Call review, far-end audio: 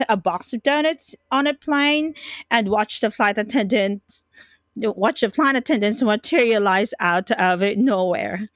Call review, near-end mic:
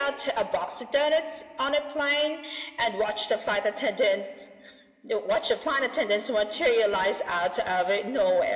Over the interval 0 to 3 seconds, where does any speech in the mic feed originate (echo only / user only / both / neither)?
echo only